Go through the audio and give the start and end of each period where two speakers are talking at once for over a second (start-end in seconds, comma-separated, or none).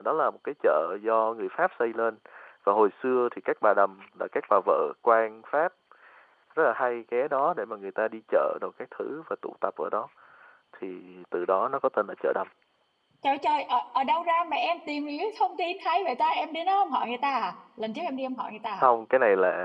none